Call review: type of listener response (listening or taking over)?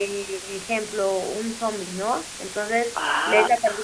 listening